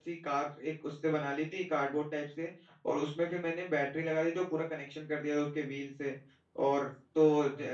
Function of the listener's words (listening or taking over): listening